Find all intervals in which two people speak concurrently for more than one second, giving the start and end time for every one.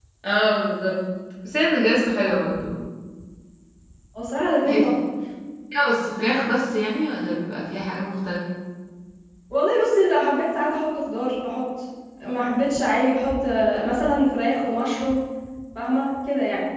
none

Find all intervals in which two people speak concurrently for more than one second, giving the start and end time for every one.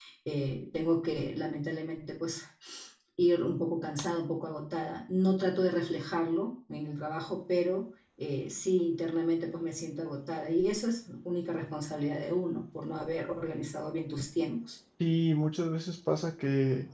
none

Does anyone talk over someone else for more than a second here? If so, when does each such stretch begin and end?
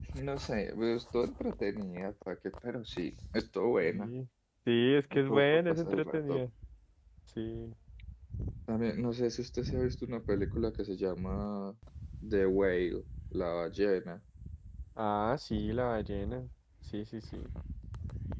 5.1-6.4

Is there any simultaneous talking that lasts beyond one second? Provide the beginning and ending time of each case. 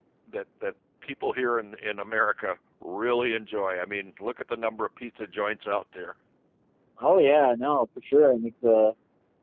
none

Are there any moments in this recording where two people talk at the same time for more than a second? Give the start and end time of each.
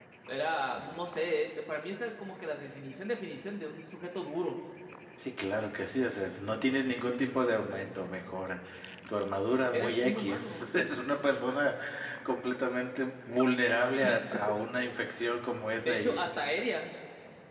9.7-11.0

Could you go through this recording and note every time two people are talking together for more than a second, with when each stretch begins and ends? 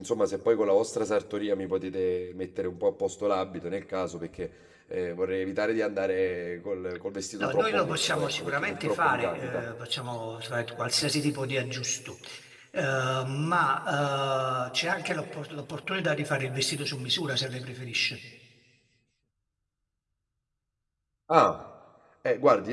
7.4-9.7

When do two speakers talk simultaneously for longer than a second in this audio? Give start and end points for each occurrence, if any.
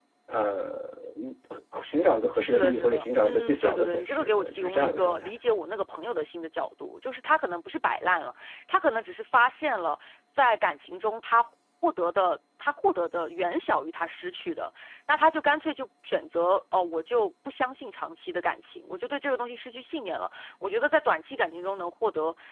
2.3-5.3

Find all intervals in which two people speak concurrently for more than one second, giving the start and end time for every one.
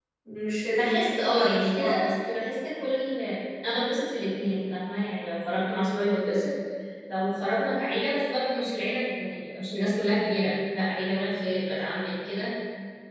0.7-2.1

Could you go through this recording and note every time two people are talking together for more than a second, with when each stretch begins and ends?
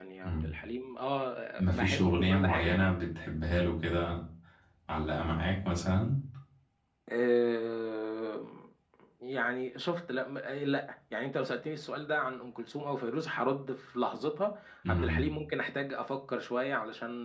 1.6-2.8

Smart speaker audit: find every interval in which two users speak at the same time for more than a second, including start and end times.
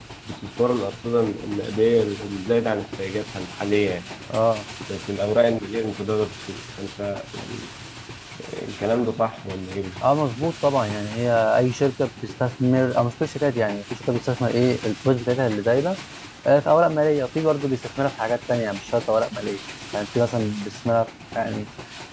none

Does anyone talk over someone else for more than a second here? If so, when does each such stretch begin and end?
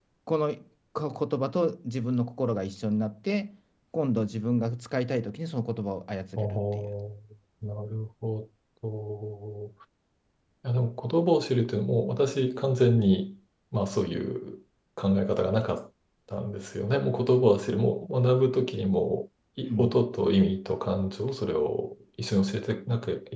none

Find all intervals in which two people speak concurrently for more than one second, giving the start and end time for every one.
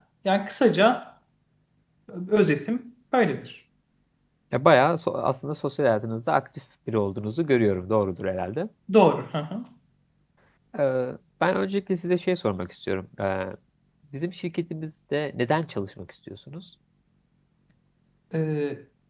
none

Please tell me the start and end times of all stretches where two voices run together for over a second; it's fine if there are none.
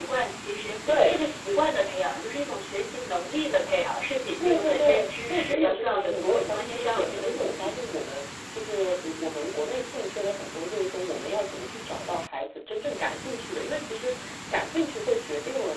4.4-7.7

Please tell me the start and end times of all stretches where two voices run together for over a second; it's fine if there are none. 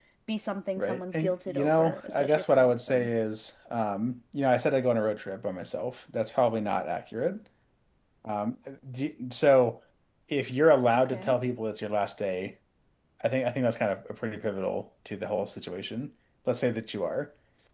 0.8-3.1

